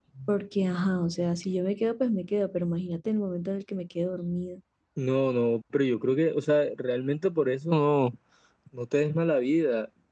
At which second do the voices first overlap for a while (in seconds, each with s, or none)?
none